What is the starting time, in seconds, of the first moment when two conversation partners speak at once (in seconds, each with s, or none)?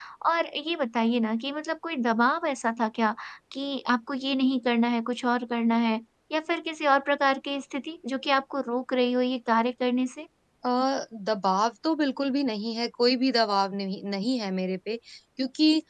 none